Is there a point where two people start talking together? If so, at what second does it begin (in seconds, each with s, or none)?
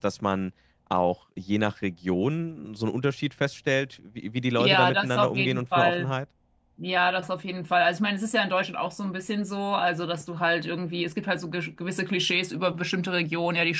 4.6 s